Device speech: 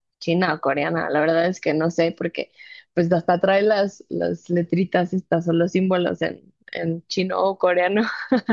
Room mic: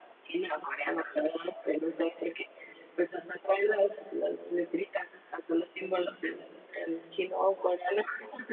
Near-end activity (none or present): none